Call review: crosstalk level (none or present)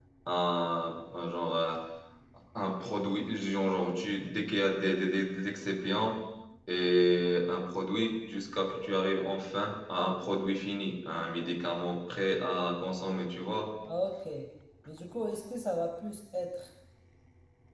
none